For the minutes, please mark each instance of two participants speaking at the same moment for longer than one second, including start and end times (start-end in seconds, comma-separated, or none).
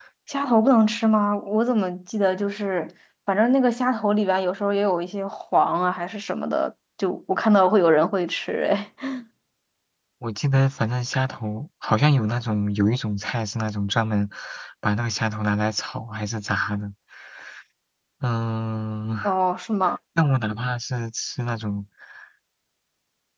none